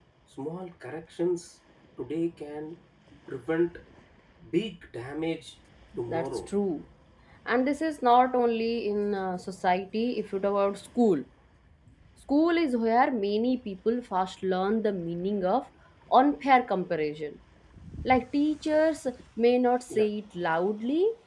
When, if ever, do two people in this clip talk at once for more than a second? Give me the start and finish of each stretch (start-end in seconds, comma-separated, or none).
none